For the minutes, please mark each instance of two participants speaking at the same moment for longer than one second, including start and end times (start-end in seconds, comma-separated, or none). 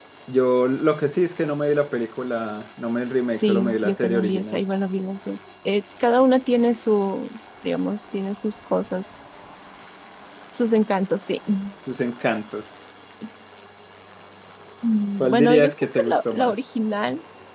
3.3-4.6, 15.2-16.6